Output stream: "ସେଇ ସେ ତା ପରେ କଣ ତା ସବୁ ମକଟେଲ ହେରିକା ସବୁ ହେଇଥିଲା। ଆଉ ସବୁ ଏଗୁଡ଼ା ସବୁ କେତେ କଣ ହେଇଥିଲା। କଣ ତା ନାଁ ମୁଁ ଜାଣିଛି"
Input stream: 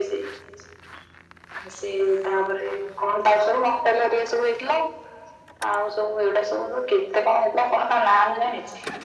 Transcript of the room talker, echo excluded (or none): none